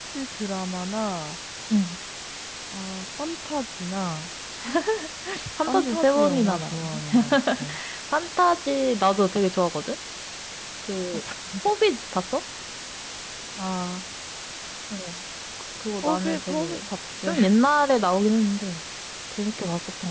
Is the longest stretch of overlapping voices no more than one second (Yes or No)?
No